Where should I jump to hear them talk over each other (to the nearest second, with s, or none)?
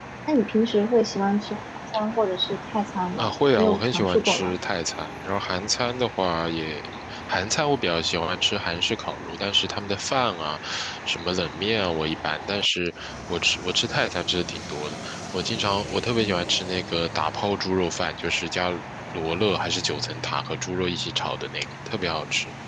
3 s